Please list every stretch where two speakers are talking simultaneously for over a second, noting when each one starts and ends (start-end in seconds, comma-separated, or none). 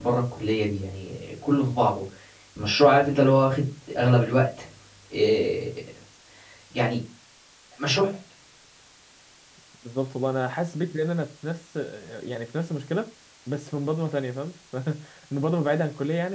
none